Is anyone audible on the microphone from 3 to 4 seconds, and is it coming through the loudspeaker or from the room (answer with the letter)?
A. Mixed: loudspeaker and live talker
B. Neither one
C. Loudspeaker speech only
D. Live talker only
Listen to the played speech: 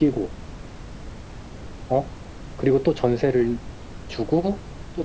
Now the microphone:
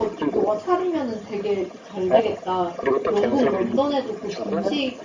A